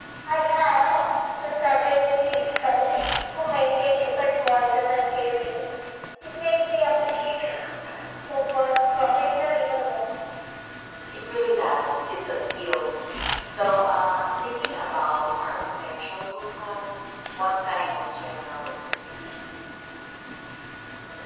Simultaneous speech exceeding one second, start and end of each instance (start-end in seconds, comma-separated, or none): none